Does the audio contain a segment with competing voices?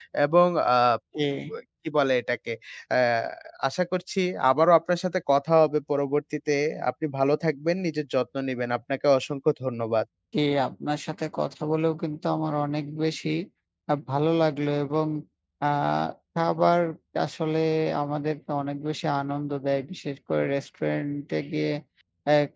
No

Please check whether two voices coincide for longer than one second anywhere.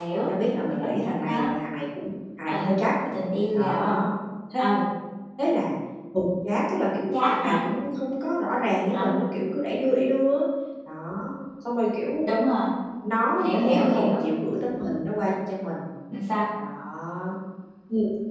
Yes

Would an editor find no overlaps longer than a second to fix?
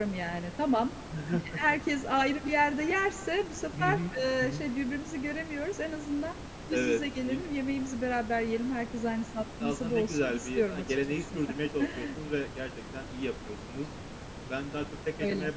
No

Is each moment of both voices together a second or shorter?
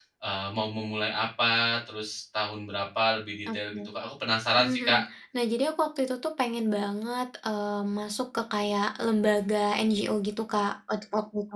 Yes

